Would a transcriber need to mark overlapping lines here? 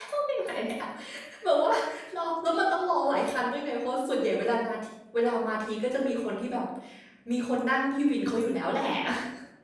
No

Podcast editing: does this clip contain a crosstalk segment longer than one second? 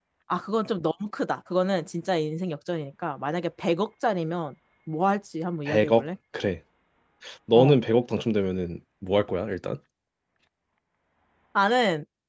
No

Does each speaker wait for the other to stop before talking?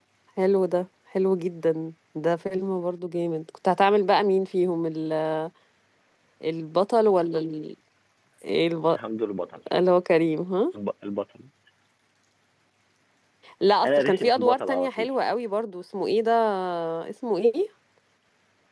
No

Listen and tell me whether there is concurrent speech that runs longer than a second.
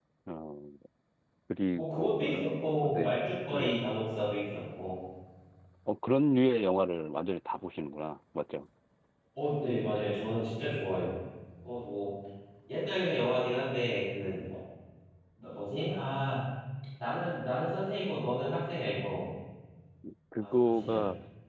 Yes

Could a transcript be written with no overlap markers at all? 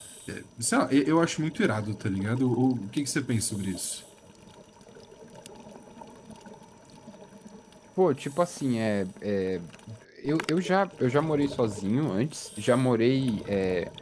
Yes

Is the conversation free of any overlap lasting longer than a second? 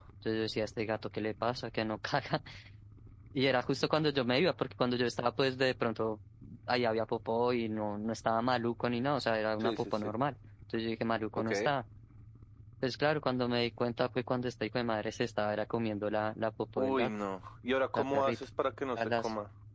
Yes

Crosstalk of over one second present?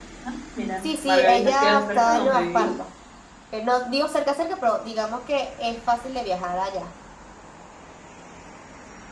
Yes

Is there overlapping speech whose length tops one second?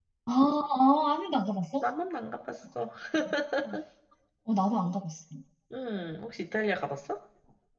No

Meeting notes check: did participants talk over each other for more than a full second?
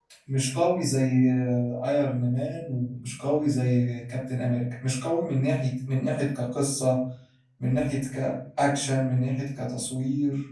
No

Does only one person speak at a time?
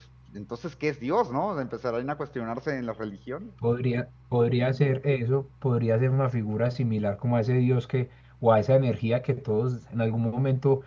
Yes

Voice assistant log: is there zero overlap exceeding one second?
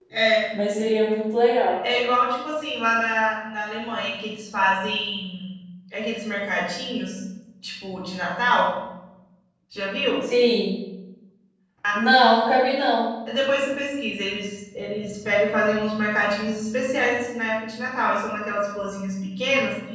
Yes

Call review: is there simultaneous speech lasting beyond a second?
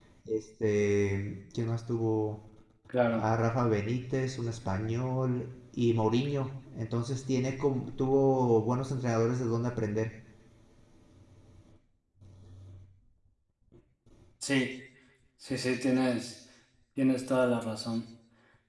No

